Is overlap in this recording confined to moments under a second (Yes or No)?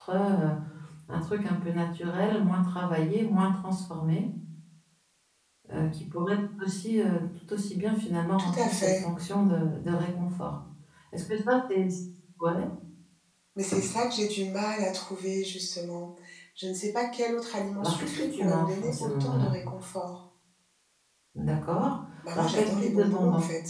No